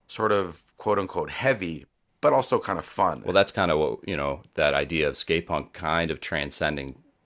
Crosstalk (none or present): none